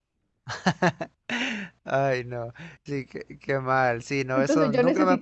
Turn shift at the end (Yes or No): Yes